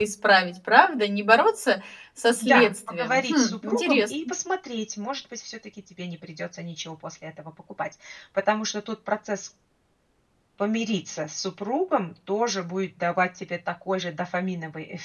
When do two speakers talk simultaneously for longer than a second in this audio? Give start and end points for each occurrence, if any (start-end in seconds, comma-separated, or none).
2.4-4.1